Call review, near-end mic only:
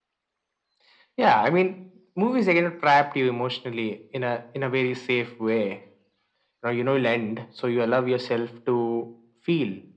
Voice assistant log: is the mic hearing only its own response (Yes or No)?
Yes